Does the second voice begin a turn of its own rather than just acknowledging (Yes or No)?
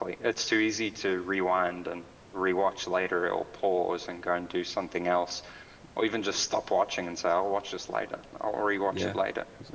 Yes